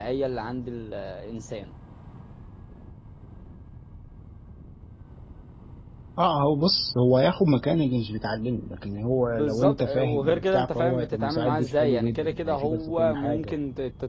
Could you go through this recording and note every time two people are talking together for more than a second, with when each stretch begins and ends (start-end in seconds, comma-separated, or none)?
9.1-13.6